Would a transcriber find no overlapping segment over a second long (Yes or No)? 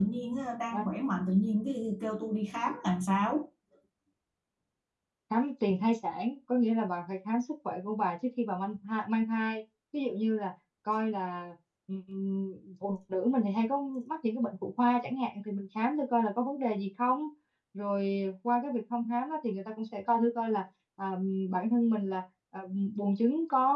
Yes